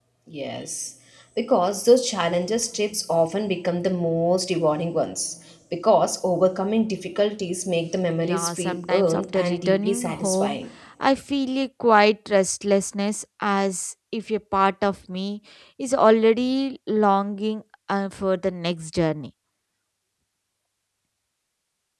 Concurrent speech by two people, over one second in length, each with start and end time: 8.2-10.6

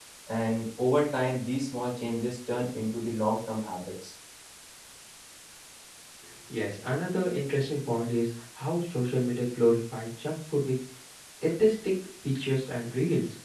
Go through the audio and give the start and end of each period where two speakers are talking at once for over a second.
none

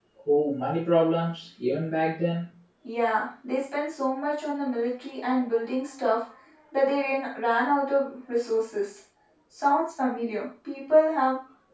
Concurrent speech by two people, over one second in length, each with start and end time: none

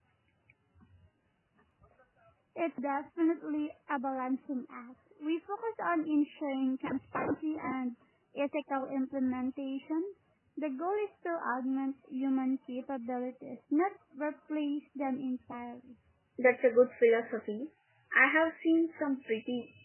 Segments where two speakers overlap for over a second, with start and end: none

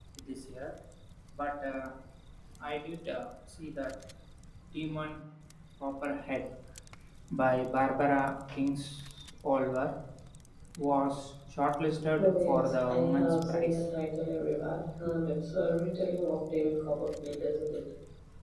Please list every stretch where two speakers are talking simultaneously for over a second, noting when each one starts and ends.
12.2-13.8

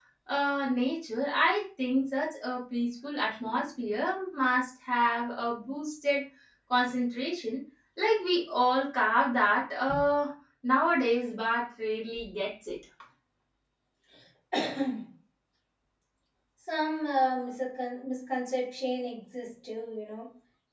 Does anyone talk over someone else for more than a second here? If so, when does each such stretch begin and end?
none

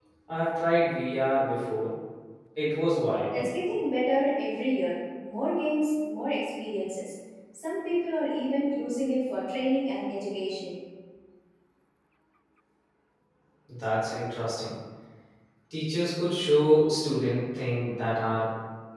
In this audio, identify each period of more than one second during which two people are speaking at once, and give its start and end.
none

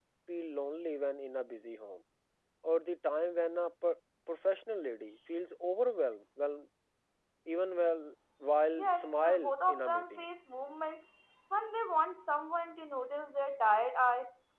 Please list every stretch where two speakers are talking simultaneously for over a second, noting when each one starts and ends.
8.8-10.2

